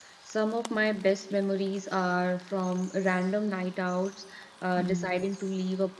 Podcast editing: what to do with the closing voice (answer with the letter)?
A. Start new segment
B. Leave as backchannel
B